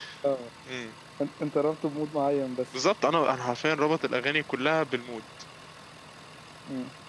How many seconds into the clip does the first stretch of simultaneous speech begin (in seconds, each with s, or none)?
none